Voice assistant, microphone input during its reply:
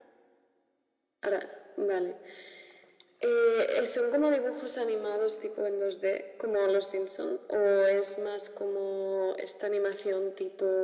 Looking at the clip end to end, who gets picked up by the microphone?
echo only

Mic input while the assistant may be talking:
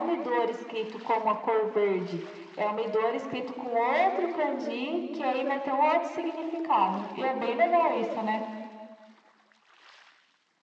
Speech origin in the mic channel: echo only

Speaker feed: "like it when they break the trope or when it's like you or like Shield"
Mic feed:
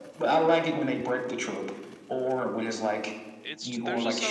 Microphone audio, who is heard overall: both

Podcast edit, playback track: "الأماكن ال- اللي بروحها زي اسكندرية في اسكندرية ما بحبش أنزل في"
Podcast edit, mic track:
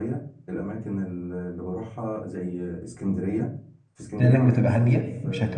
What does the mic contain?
both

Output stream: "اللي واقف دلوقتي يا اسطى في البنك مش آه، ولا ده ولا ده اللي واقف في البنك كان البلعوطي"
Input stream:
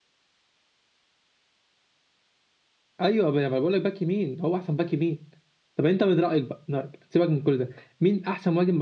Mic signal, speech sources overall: user only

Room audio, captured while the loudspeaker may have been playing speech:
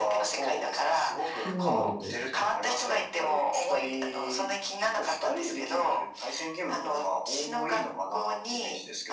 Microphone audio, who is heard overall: both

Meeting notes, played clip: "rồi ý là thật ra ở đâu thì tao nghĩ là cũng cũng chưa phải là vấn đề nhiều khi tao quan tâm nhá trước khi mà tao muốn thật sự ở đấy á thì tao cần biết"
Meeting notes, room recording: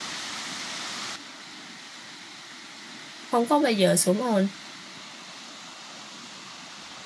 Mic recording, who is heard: user only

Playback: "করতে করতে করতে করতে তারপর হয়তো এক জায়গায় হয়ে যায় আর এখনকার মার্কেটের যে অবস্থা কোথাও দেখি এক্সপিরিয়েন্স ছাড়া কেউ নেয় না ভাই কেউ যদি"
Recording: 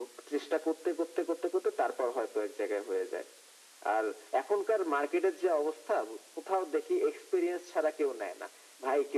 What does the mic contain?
echo only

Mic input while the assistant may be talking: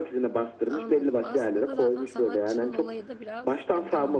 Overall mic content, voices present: both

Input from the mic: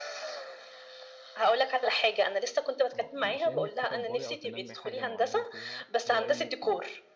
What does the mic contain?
both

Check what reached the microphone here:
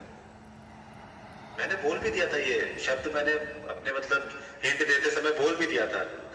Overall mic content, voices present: echo only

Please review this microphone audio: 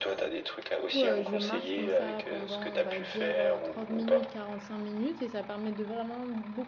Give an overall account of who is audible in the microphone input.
both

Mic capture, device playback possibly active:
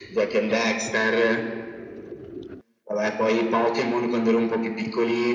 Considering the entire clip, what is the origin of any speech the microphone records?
echo only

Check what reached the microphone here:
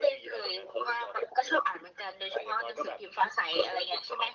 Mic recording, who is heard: echo only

